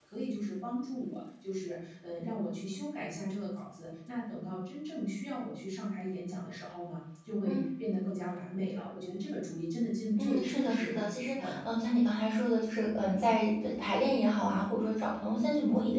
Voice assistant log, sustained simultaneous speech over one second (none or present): present